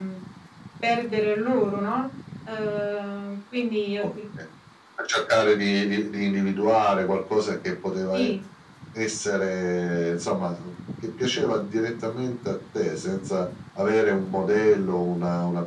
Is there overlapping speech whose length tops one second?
No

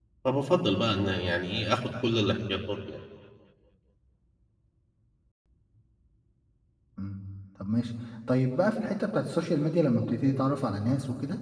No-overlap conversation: Yes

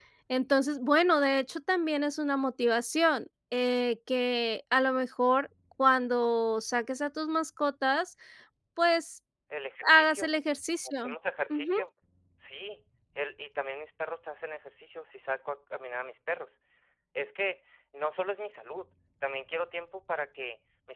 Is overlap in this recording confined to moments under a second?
Yes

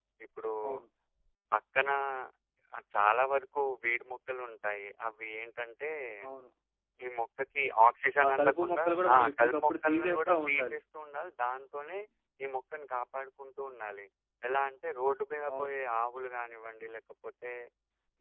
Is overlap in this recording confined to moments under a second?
No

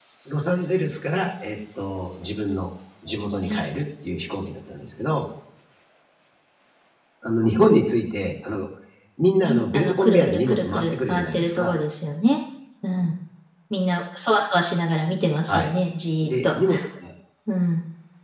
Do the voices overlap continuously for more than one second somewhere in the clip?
Yes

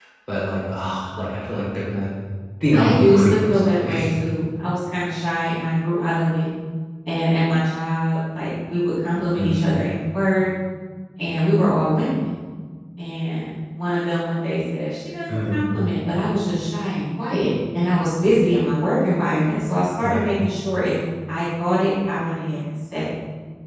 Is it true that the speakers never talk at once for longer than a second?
No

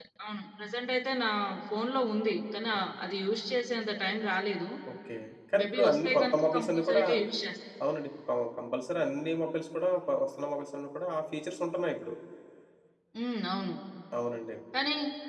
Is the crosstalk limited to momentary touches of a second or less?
No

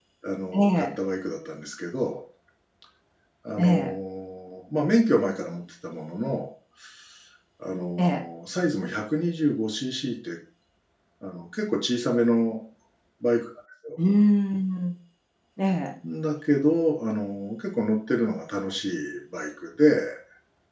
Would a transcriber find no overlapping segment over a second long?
Yes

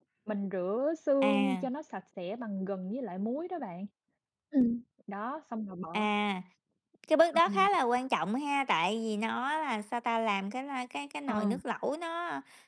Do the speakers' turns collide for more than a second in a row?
No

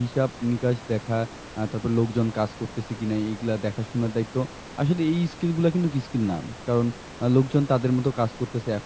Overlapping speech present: No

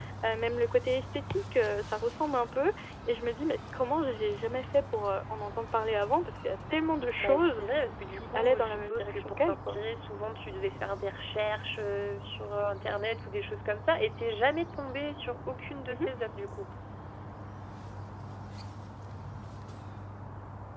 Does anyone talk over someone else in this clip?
Yes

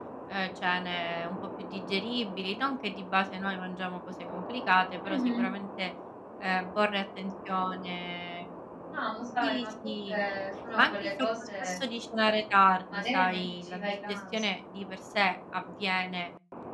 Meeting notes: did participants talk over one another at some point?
Yes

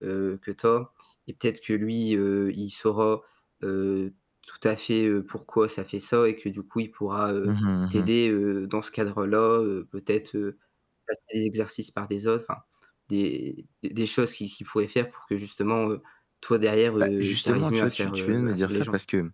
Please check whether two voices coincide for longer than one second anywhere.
Yes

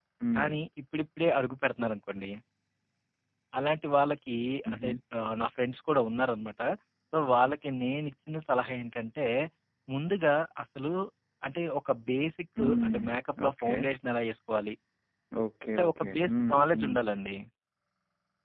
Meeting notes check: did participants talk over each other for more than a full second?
Yes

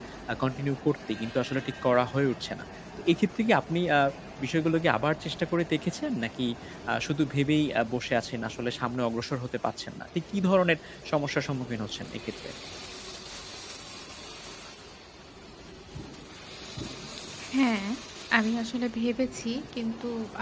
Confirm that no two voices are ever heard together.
Yes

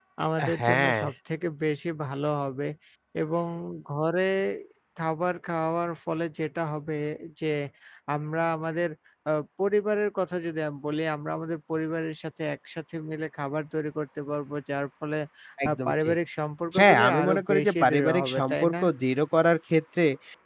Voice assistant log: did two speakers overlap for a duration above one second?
Yes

